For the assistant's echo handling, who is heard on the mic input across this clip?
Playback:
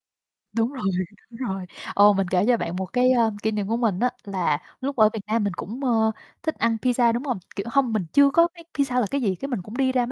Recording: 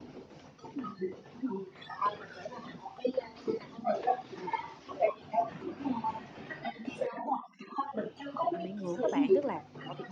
both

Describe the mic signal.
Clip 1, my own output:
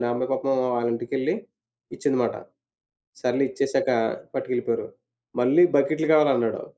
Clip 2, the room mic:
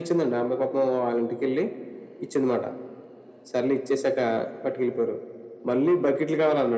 echo only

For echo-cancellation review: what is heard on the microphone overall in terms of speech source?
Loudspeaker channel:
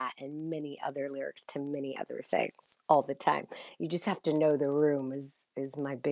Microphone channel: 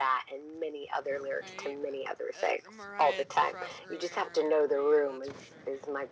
both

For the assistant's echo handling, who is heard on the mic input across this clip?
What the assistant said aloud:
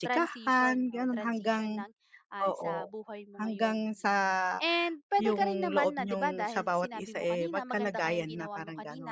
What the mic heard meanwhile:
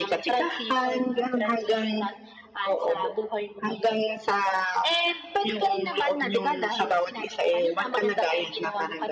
echo only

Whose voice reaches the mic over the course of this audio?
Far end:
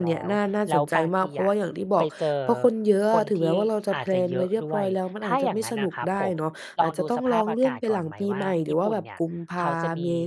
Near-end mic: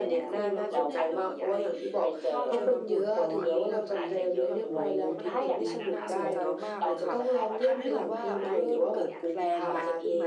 both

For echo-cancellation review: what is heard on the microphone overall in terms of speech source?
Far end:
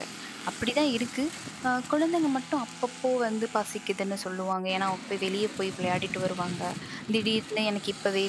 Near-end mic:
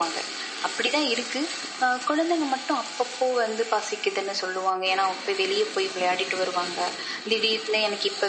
echo only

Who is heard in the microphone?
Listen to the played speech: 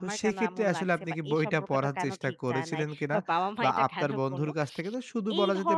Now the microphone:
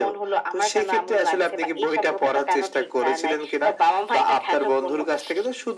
echo only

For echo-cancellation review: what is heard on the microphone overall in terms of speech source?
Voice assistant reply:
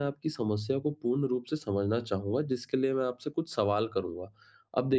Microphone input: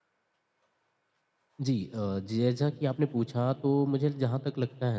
user only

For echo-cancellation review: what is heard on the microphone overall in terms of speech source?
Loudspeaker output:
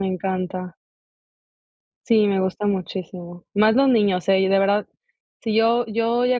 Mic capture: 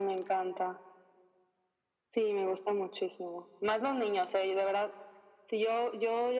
echo only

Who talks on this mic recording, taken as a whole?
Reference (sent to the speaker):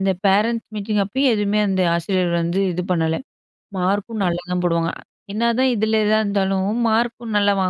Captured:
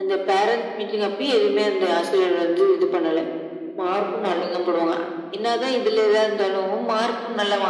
echo only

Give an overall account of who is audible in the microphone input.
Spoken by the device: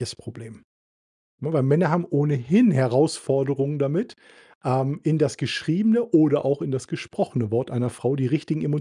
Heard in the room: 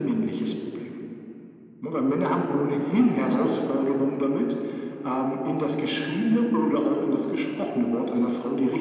echo only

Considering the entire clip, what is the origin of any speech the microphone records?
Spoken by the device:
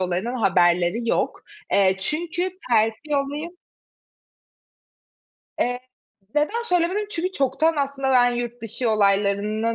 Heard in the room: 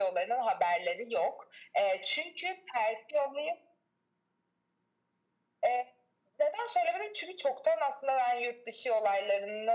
echo only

